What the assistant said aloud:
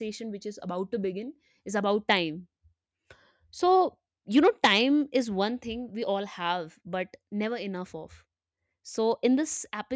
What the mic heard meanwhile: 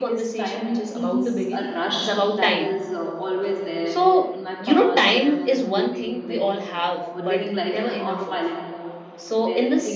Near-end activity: present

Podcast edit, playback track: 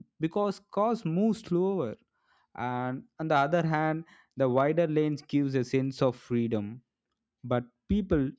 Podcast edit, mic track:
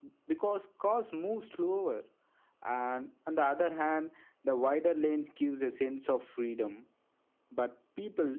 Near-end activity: none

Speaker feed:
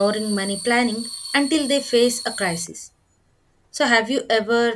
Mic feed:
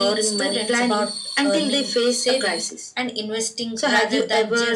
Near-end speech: present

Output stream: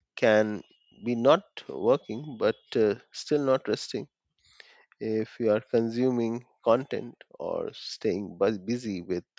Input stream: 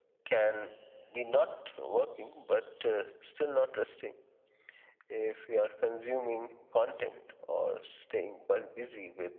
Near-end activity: none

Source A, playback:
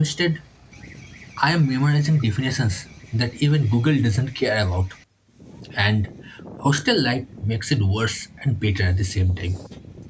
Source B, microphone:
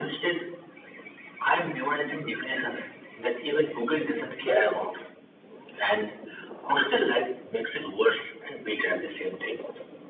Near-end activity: none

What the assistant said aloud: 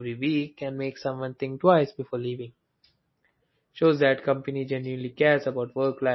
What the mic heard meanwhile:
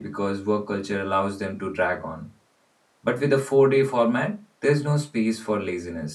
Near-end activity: present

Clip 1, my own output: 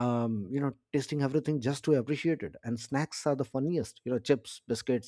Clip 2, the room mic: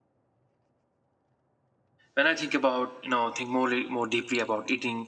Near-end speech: present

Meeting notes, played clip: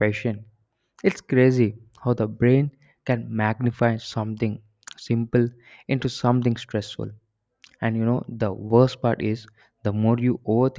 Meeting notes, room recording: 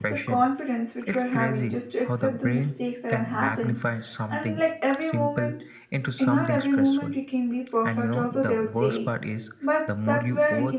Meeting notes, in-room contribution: present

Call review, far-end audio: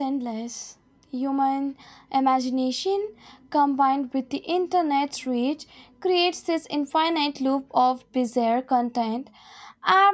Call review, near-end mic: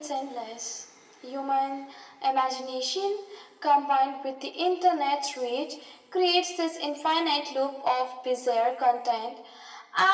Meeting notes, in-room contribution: none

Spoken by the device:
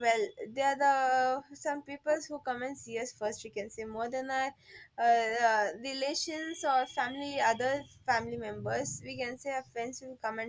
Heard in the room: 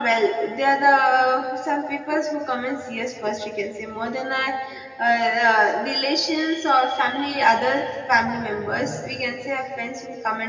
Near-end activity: none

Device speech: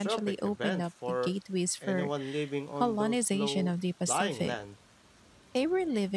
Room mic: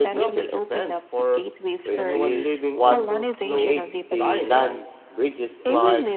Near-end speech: present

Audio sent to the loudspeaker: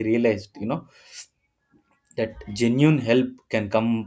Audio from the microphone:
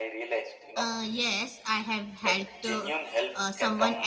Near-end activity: present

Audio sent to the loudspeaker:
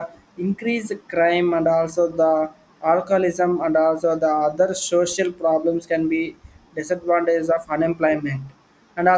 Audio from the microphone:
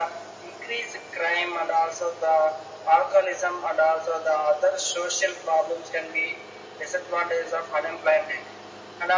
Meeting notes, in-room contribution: none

